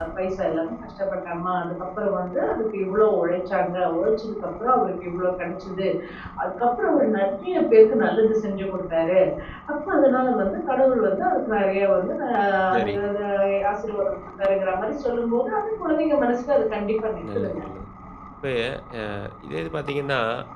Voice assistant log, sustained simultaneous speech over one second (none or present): none